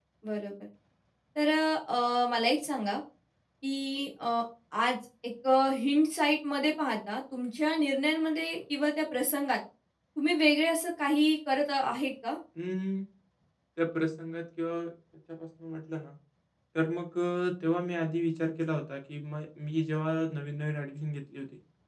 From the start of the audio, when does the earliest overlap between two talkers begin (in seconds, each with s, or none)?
none